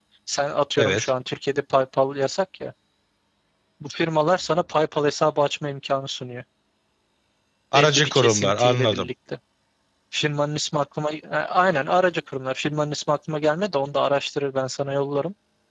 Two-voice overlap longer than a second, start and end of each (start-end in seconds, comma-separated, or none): 7.7-9.1